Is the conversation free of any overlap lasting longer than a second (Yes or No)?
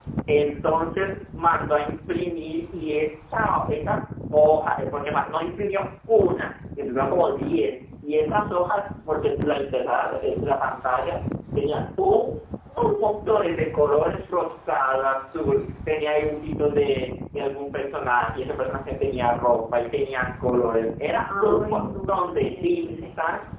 No